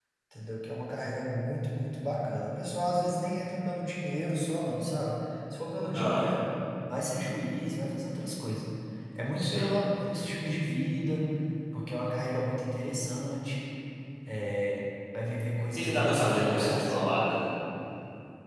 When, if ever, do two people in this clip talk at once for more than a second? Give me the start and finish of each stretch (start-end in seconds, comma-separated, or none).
15.7-16.9